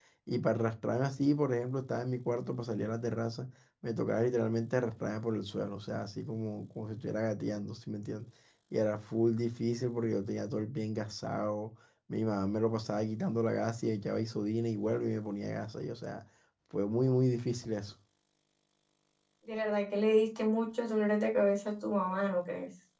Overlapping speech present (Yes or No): No